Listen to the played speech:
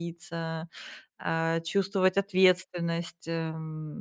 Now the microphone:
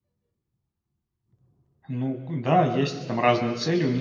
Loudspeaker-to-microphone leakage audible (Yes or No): No